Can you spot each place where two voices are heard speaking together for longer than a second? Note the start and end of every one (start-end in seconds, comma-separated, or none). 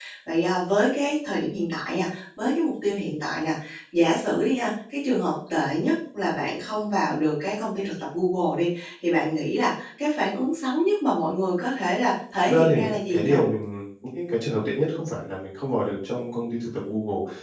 none